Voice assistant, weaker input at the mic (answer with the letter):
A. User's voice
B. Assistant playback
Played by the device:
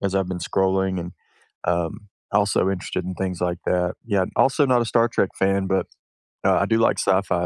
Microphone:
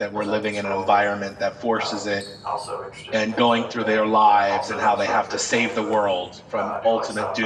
B